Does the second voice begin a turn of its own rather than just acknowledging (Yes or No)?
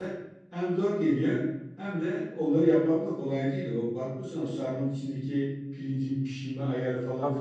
No